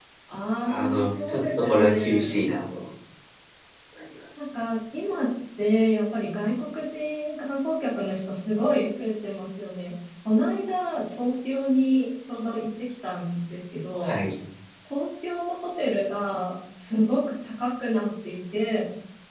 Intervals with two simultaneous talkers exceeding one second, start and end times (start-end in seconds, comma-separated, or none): 0.6-2.4